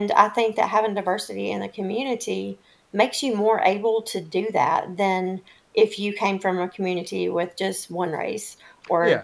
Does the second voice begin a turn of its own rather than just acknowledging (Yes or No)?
Yes